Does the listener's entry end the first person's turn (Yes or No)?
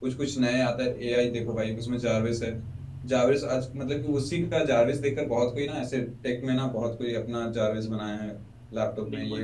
Yes